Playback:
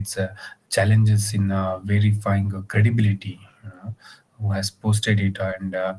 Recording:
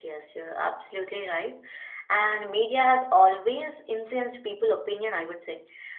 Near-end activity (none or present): present